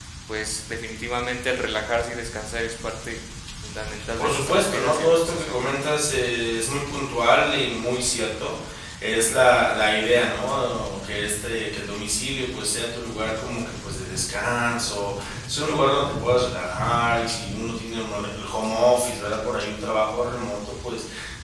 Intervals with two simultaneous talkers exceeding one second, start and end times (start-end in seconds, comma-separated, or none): 4.2-5.6